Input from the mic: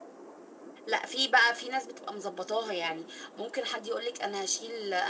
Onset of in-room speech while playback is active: 0.9 s

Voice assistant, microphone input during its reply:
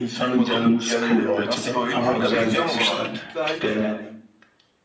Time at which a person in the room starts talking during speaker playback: 2.0 s

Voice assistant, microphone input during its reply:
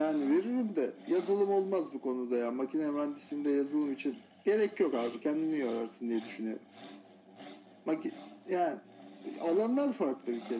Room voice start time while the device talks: none

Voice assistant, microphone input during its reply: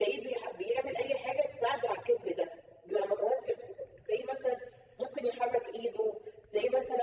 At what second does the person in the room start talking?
none

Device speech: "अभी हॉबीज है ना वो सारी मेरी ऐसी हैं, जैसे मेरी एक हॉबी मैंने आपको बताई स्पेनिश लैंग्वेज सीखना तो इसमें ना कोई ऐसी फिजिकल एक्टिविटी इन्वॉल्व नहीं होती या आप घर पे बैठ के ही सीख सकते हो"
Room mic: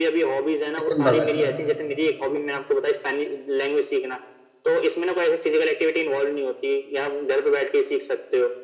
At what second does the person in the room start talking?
0.8 s

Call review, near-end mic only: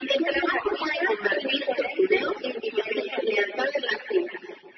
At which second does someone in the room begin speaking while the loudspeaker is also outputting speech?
none

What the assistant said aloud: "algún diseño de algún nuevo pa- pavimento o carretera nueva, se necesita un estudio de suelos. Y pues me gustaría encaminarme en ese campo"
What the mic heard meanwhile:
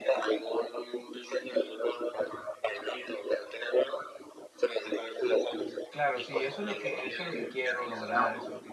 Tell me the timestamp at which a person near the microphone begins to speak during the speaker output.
5.9 s

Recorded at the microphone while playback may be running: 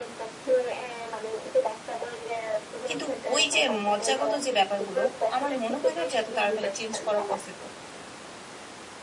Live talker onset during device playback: 2.9 s

